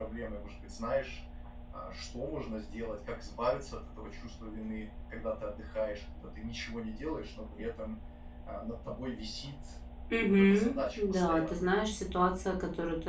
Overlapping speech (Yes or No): Yes